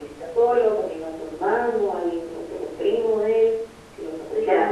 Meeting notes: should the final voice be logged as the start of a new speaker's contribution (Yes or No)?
Yes